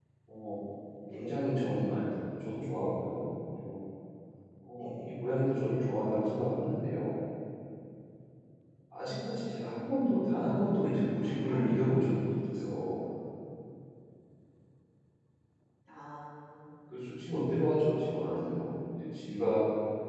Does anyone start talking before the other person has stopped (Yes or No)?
Yes